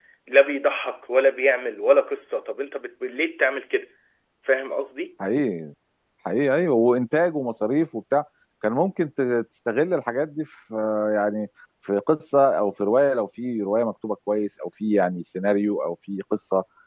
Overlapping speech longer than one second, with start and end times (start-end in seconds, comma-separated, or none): none